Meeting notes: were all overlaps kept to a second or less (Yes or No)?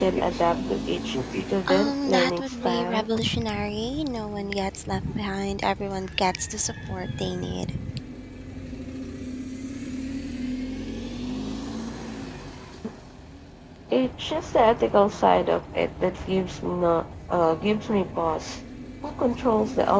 No